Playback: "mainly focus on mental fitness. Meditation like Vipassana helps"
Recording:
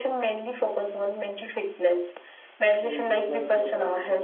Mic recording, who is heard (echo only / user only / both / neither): both